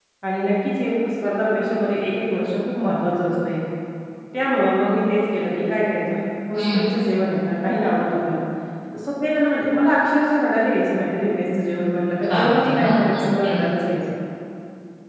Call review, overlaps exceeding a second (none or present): present